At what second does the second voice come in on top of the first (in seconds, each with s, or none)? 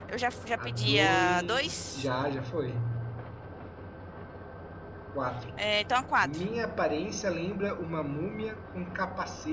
0.6 s